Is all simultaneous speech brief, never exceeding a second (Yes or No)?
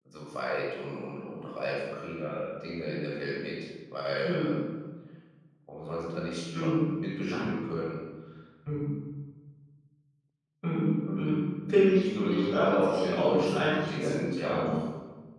No